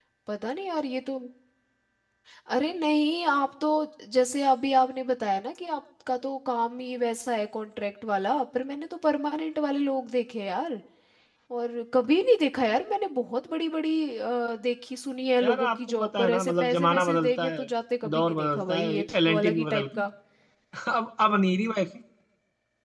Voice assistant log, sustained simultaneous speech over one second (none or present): present